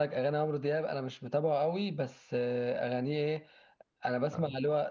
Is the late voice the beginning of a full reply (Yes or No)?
No